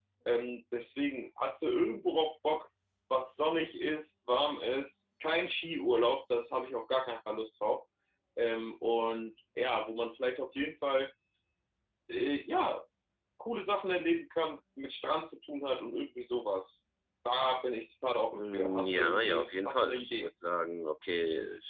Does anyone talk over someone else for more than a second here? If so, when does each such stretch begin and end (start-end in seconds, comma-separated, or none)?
18.3-20.3